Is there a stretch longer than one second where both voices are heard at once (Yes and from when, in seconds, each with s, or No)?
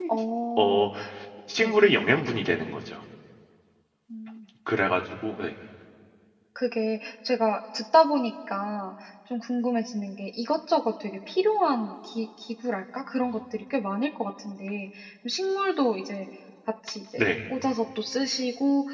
No